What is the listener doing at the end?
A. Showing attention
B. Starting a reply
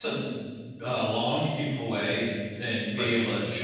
A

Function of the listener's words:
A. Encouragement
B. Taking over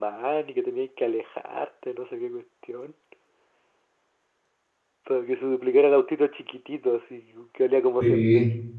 B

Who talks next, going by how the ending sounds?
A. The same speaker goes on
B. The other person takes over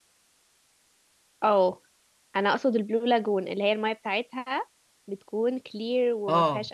B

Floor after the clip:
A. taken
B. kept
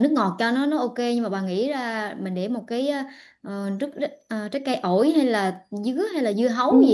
A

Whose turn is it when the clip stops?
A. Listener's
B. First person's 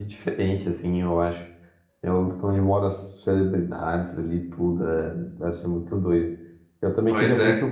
B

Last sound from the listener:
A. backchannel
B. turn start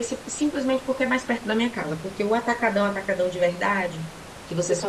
A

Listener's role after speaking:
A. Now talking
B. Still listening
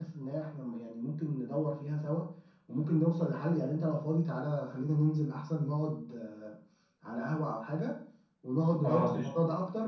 B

